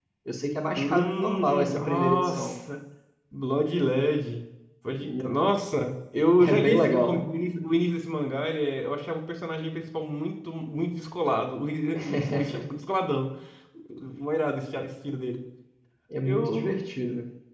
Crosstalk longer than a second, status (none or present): present